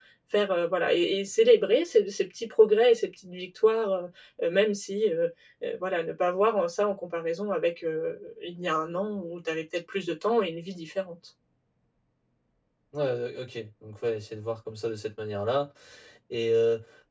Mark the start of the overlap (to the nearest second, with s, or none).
none